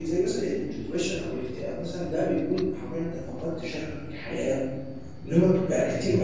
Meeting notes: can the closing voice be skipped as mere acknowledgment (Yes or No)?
Yes